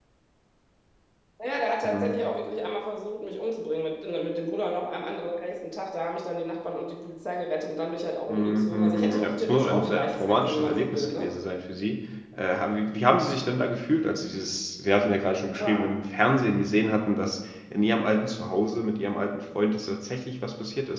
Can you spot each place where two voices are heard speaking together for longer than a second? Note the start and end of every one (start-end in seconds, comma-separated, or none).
8.3-11.3